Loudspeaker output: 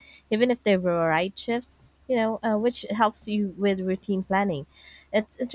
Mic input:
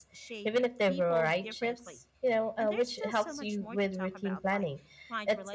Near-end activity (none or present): present